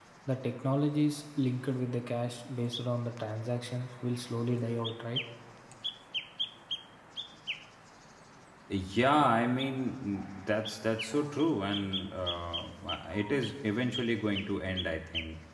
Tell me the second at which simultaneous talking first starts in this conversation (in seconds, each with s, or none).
none